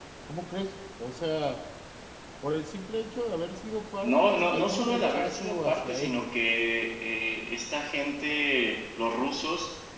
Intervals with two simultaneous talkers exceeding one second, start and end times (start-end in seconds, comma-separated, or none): 4.0-6.3